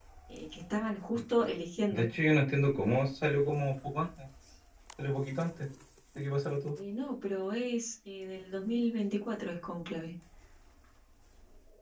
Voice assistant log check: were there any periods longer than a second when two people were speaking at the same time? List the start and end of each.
none

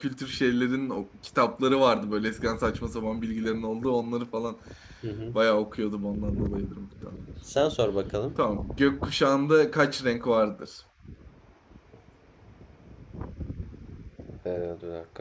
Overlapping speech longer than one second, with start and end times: none

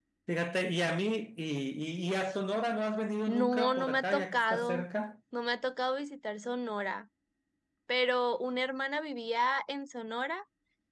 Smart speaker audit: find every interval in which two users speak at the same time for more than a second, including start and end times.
3.3-4.9

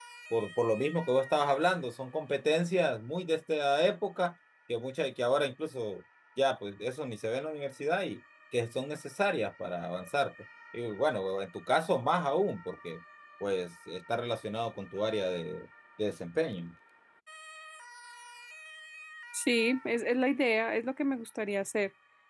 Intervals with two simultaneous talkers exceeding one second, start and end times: none

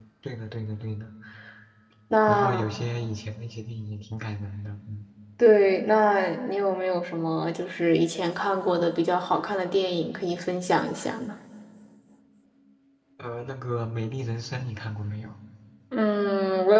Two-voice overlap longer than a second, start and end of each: none

